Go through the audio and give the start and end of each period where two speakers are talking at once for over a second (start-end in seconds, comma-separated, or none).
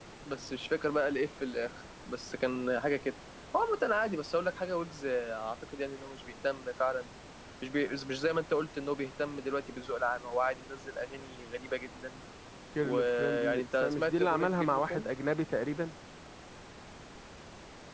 12.8-15.1